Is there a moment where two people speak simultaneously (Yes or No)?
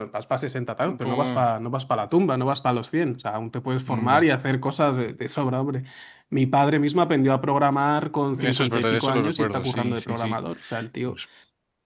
Yes